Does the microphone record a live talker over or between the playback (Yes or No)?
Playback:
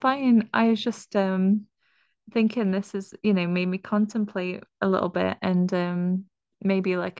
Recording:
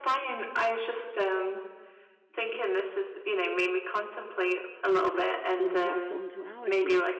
Yes